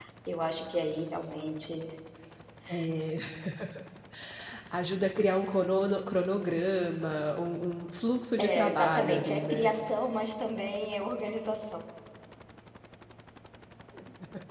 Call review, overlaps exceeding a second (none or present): present